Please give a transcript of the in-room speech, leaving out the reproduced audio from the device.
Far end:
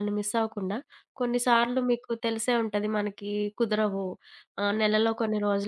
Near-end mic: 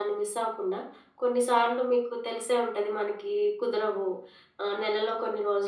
none

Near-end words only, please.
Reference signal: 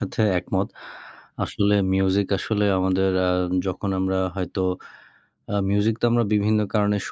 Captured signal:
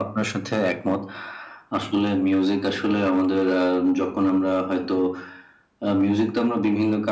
none

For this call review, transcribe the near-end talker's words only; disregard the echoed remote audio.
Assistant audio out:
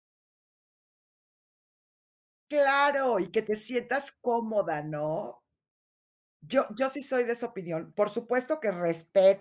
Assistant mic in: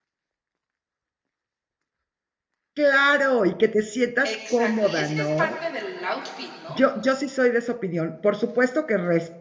Exacto, y es que es parte del outfit, ¿no?

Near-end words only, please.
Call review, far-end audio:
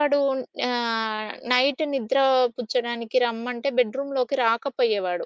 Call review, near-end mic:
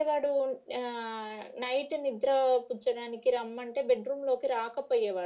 none

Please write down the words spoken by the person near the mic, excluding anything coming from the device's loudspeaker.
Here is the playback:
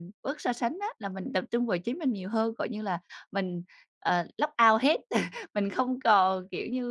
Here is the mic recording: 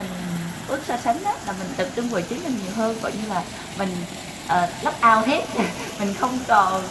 none

